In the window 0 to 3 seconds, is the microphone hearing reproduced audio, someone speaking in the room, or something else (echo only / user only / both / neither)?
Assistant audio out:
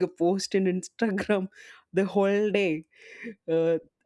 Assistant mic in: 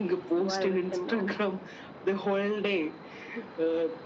both